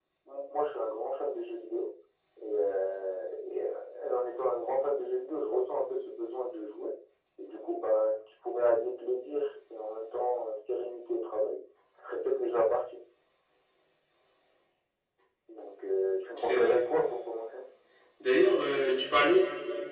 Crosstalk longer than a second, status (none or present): none